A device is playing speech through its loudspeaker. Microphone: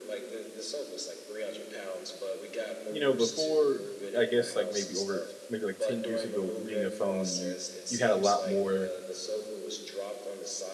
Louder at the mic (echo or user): user